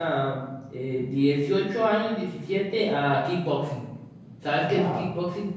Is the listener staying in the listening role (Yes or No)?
No